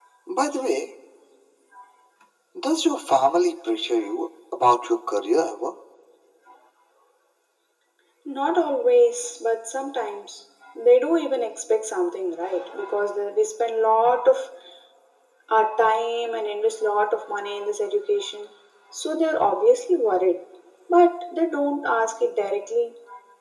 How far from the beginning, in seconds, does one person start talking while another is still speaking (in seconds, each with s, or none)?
none